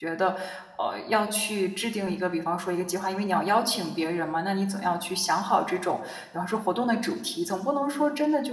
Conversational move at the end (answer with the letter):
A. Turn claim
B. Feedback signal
B